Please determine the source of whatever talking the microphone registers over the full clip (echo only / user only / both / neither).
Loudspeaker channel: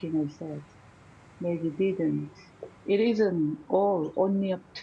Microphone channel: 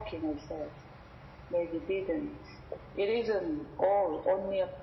echo only